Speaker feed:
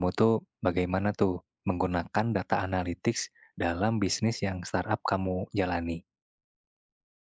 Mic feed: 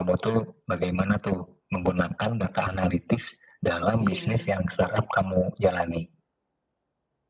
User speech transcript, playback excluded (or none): Iya.